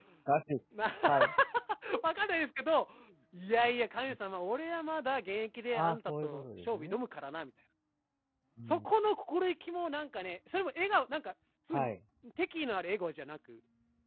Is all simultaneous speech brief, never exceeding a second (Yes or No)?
No